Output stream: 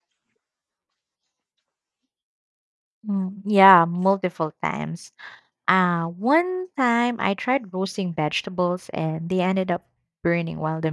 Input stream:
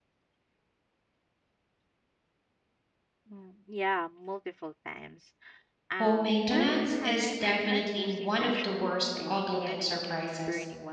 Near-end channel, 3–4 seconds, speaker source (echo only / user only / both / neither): echo only